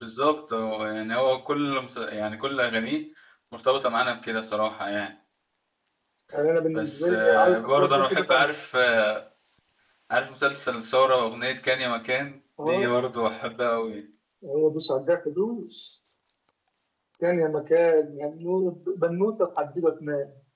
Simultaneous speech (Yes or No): Yes